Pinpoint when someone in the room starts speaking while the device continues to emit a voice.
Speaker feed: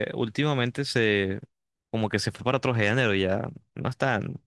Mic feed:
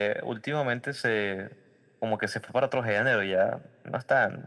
none

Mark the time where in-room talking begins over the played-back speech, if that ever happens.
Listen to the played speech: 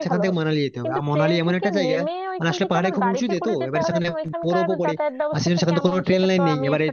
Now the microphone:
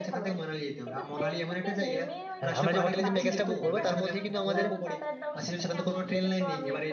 2 s

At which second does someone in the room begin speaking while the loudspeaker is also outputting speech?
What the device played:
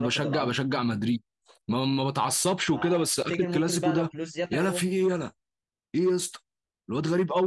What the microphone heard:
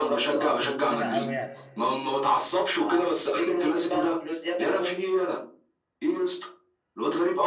1 s

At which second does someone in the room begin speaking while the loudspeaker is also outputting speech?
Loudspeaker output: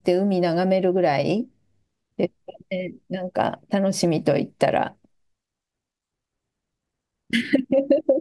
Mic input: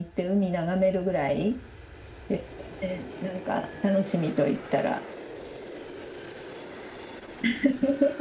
none

